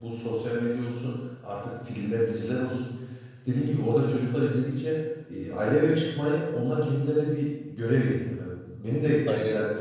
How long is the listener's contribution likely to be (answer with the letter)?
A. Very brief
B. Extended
A